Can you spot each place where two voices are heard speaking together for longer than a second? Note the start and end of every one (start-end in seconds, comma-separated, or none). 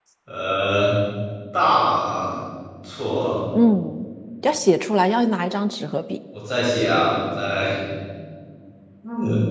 none